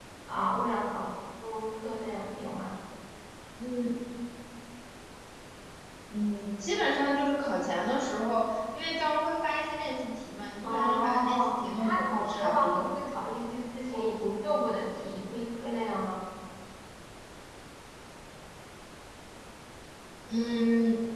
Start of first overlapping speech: 11 s

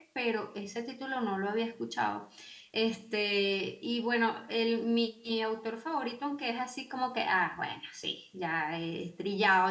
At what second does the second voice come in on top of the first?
none

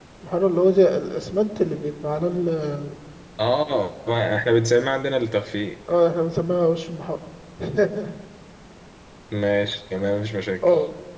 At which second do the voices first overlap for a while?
none

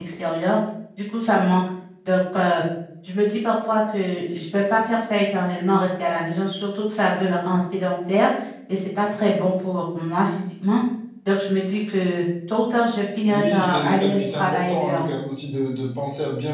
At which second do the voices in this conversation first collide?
13 s

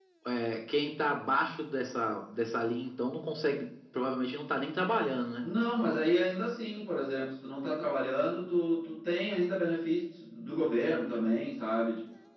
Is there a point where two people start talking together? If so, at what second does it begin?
none

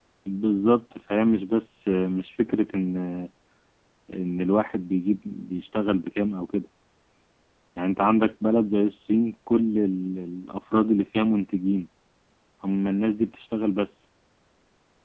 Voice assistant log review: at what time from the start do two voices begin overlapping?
none

